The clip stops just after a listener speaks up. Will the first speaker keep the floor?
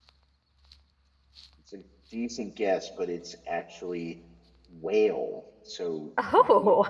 Yes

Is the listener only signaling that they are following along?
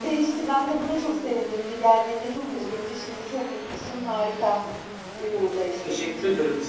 No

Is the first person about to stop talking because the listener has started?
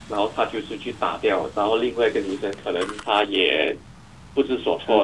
No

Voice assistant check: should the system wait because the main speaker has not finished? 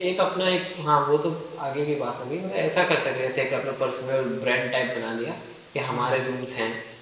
Yes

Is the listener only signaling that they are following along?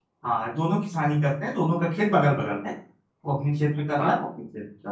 Yes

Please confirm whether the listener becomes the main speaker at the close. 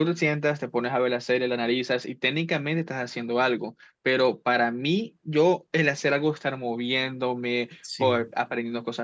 No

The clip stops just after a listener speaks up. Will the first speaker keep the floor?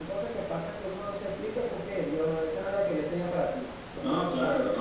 No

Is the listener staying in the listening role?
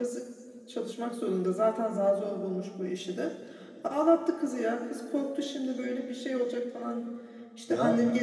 Yes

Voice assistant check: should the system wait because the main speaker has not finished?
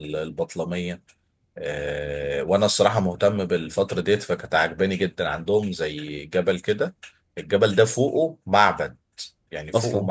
Yes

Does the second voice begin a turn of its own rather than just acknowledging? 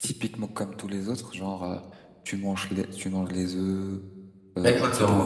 Yes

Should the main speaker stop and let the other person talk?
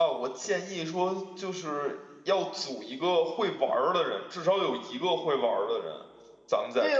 Yes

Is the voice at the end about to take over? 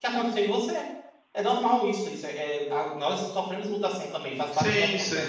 Yes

